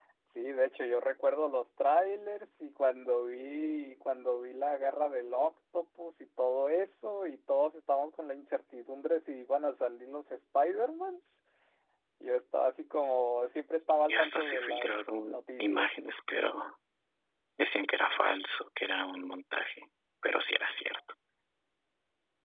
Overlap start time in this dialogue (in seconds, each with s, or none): 14.1 s